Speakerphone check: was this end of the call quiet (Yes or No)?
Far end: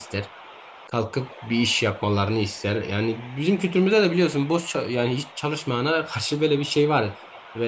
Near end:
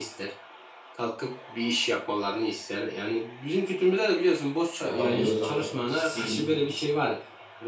No